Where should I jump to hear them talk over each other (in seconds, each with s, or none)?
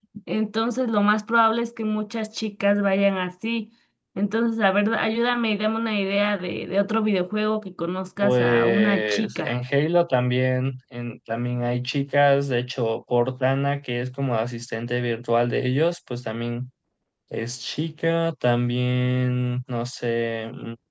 8.2 s